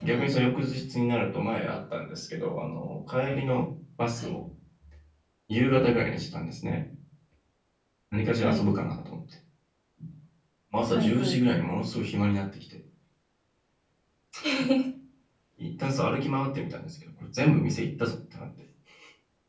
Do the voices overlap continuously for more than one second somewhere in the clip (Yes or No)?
No